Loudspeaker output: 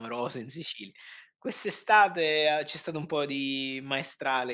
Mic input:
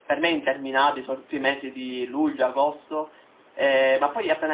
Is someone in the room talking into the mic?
Yes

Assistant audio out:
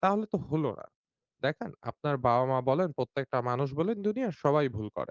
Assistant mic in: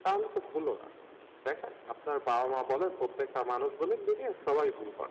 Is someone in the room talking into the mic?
No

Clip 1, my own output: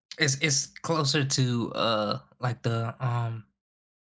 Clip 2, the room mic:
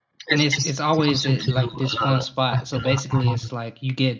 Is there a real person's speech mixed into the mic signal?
Yes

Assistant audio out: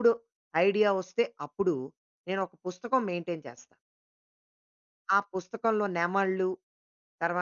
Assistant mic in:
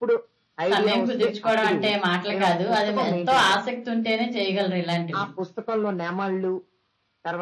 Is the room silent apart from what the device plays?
No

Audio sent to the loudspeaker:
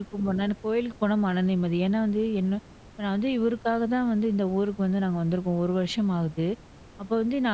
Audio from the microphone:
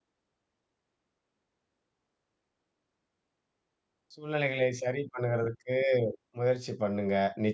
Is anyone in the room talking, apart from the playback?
Yes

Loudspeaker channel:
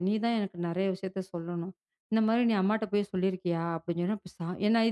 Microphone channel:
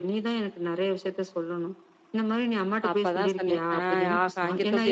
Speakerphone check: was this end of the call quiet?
No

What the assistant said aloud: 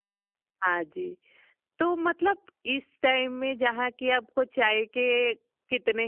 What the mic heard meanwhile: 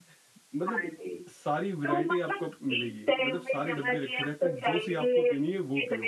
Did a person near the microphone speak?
Yes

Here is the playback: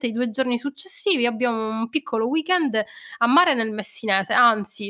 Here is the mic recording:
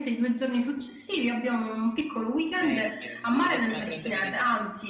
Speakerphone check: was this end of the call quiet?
No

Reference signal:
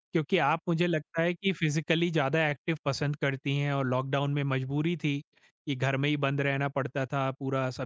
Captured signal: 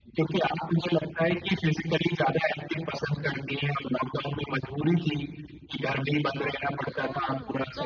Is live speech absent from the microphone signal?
No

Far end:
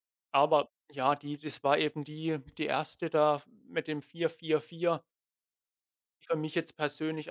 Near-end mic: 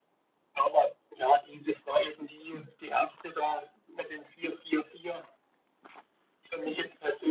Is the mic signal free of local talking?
Yes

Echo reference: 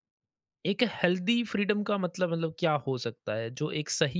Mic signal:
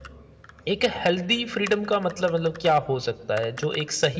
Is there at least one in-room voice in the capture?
No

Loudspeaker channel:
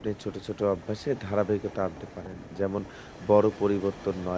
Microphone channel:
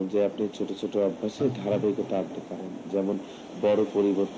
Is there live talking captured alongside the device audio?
Yes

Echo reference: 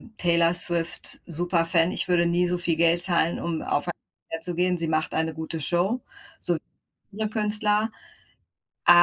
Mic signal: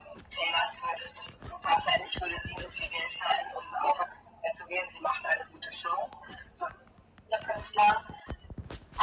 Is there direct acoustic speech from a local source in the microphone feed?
No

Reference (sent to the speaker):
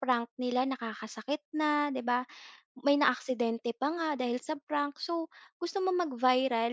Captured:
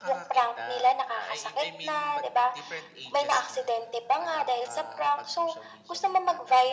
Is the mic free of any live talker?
No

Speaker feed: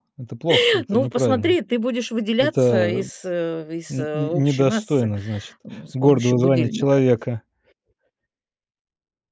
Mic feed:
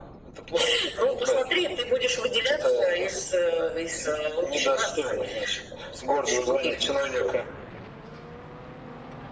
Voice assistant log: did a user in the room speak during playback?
No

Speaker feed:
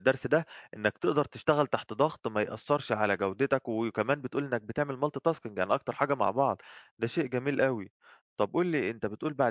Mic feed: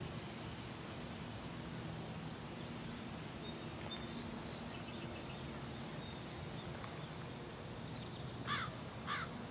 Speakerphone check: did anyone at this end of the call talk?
No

